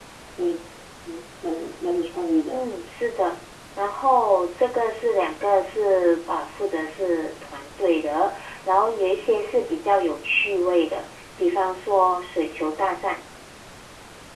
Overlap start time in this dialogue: none

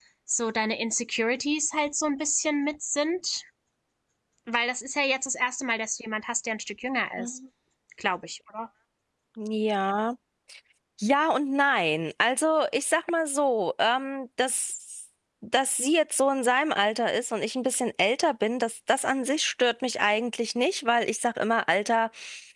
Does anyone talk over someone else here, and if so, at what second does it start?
none

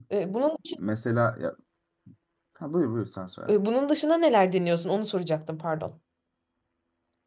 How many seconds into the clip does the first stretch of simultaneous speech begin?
none

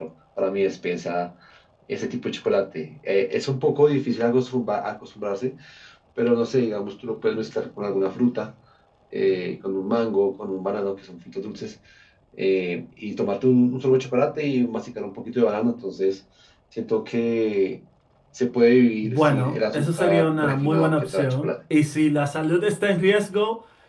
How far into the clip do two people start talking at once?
19.0 s

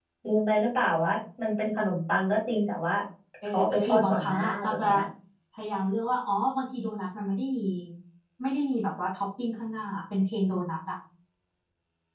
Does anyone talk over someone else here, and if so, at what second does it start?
3.5 s

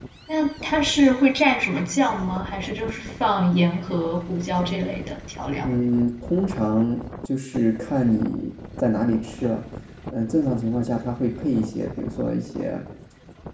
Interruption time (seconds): none

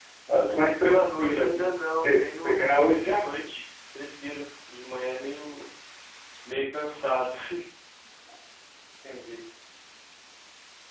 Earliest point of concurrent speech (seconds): 0.8 s

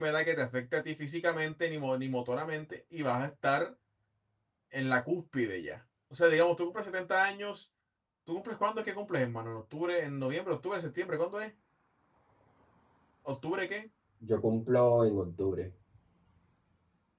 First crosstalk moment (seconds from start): none

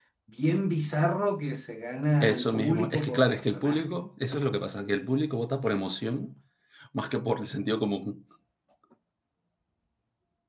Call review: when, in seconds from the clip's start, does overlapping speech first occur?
2.2 s

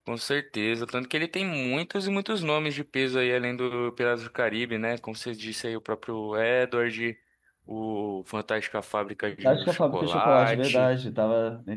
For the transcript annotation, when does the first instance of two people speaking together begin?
9.4 s

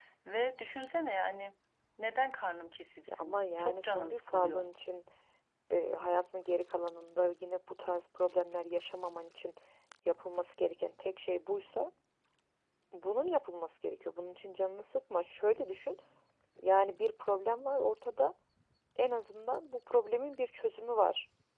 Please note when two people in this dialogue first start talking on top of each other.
3.1 s

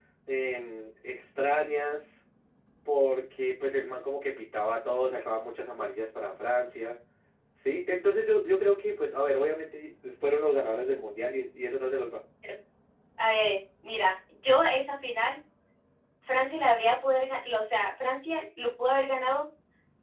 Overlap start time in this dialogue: none

